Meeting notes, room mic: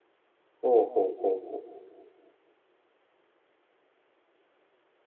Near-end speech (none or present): present